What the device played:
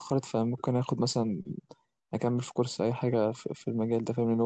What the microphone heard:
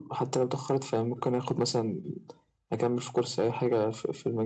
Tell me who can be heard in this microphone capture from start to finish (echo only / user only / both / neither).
echo only